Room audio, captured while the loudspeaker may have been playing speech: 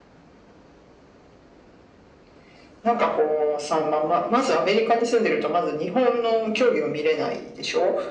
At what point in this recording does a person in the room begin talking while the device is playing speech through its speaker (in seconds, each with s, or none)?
none